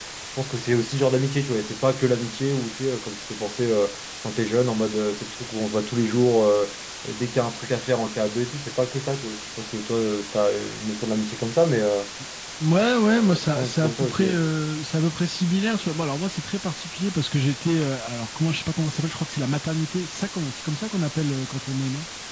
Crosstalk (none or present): present